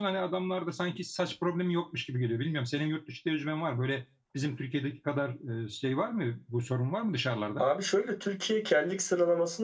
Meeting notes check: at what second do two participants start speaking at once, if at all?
none

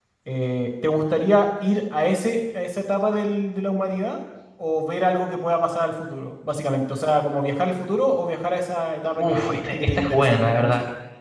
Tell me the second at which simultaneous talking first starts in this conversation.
9 s

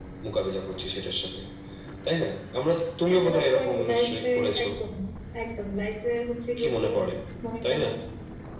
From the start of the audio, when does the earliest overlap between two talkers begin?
3 s

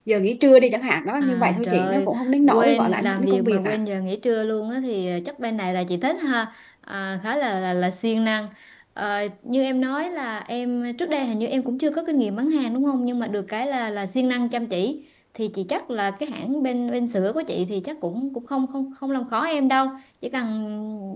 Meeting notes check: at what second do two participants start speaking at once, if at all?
1 s

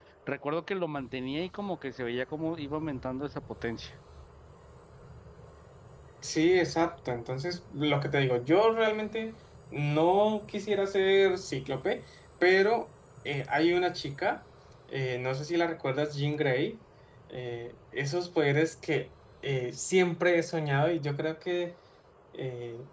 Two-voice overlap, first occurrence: none

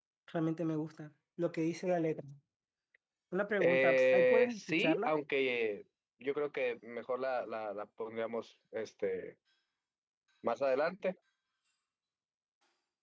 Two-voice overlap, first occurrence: 4 s

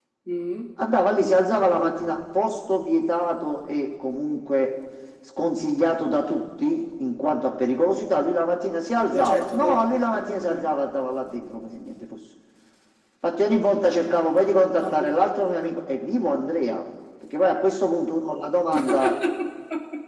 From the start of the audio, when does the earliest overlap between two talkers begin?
9 s

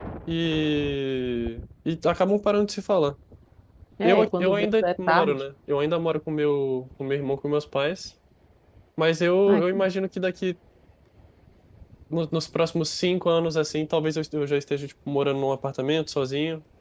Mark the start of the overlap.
4 s

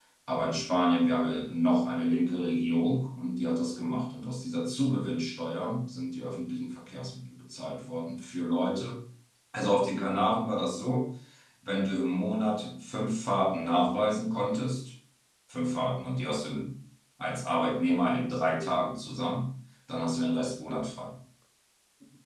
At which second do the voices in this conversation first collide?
none

